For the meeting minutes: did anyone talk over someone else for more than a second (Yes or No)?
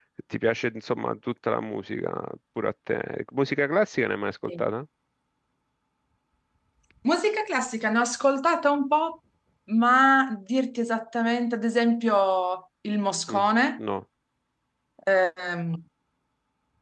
No